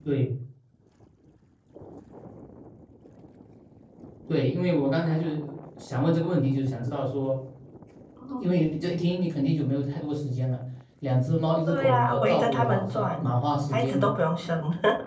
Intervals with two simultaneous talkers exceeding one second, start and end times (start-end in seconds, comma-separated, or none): 11.7-13.1